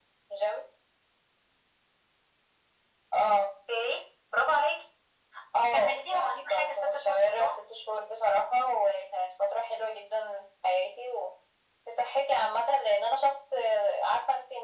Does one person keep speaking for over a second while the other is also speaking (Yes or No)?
Yes